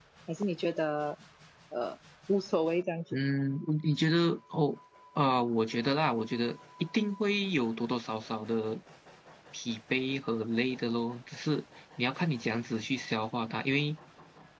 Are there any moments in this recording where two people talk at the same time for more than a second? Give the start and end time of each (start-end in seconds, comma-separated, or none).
none